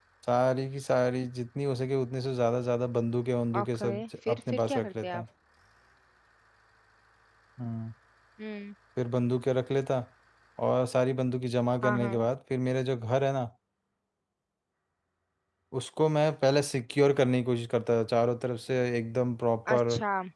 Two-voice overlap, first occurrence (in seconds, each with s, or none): 3.6 s